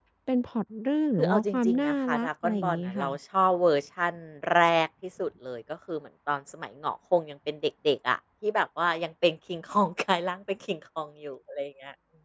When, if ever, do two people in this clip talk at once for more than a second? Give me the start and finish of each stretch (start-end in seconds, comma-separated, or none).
1.2-3.0